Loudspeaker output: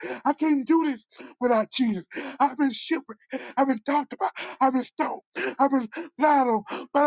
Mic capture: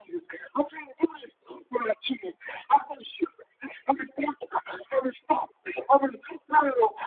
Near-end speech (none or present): none